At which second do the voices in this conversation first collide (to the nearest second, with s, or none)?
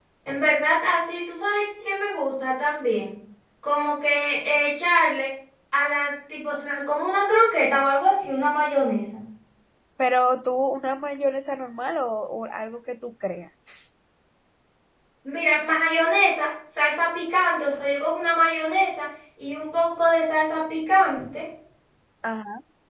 none